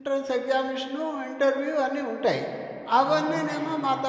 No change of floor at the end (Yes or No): Yes